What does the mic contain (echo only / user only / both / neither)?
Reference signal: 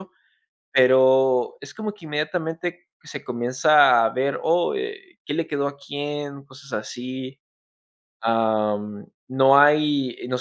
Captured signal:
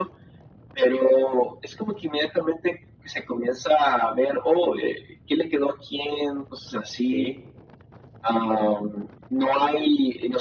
both